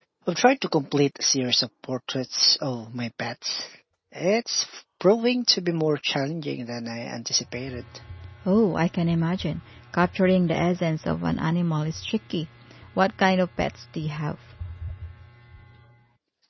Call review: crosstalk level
none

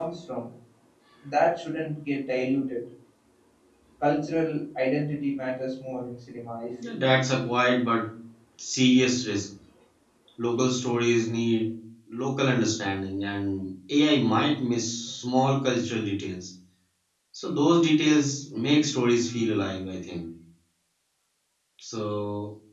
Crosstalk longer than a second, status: none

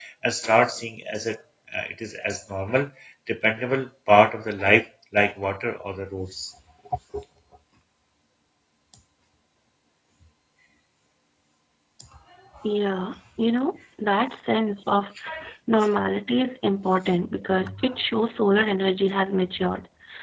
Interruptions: none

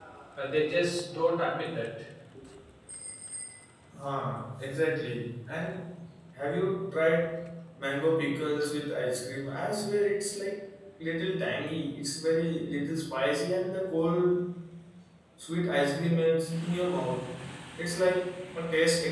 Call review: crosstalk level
none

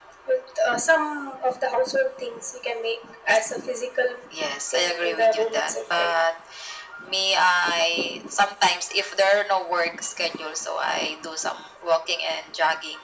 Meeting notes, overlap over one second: present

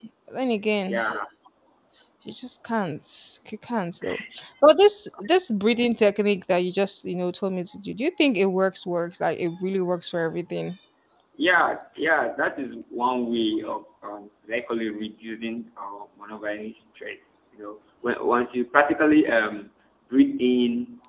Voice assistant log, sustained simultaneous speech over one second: none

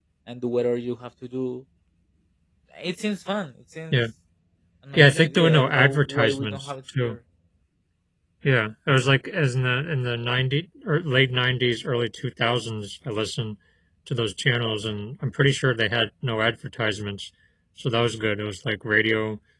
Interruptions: present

